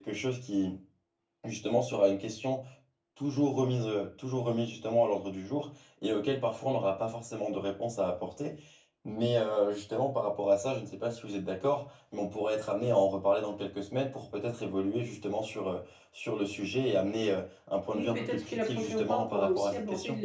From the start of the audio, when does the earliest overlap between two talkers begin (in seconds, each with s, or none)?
17.9 s